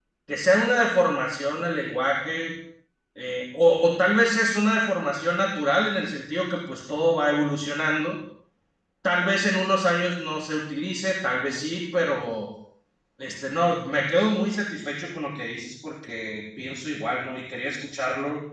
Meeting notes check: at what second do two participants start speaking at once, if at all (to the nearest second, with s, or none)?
none